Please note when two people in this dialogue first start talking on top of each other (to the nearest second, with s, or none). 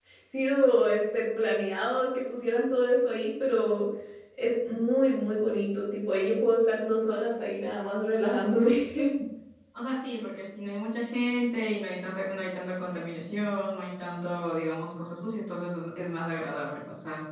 none